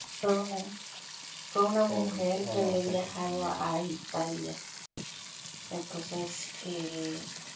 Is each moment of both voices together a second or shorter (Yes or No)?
No